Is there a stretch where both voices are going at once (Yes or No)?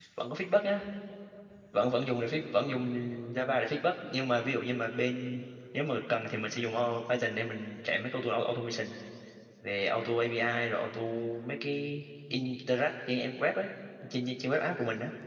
No